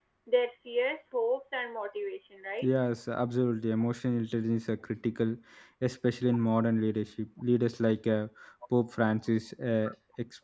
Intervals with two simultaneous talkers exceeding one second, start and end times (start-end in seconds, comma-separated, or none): none